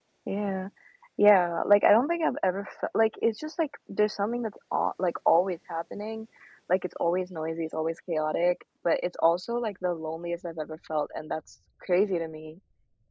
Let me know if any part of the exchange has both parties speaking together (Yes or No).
No